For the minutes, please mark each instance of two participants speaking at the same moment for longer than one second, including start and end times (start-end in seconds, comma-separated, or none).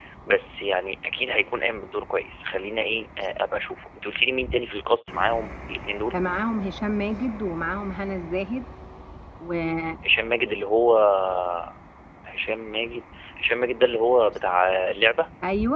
none